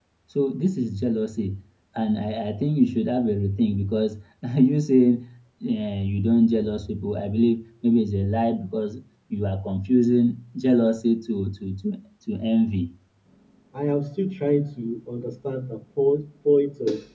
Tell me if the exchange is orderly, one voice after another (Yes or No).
Yes